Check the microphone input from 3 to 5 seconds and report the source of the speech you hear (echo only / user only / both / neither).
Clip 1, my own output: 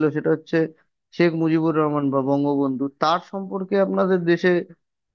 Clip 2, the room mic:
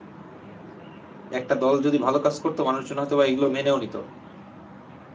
user only